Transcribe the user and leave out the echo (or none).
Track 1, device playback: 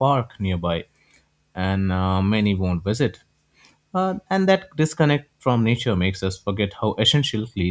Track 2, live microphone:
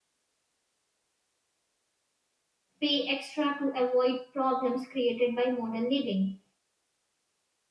pay extra to avoid problems created by modern living.